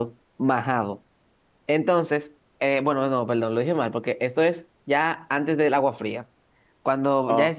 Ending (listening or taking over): listening